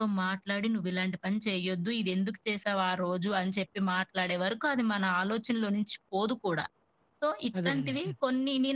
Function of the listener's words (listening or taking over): listening